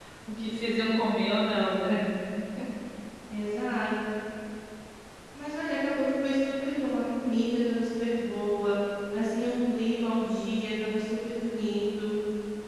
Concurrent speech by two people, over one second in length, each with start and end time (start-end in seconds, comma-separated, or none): none